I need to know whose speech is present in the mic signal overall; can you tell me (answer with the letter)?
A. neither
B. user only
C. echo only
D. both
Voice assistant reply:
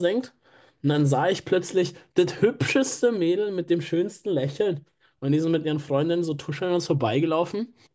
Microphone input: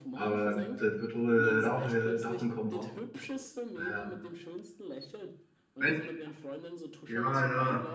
D